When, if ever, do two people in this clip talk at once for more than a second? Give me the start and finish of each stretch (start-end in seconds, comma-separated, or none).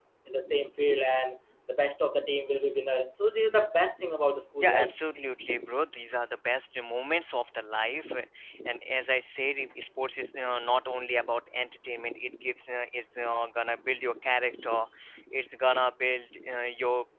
none